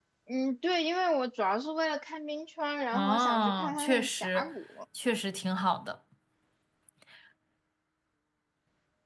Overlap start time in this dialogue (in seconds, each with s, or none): 2.9 s